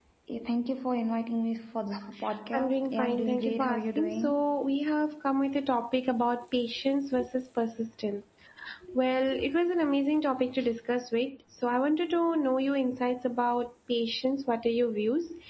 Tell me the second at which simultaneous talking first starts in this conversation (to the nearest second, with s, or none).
3 s